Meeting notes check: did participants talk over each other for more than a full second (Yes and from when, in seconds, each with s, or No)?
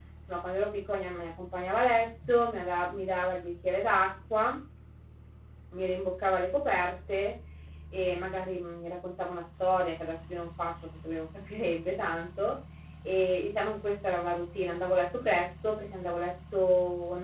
No